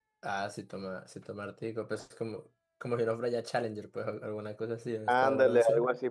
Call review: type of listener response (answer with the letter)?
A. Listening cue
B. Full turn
B